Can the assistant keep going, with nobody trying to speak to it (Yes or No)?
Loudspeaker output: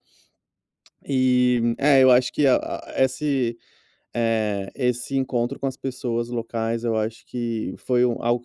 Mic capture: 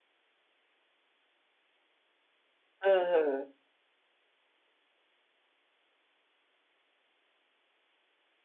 No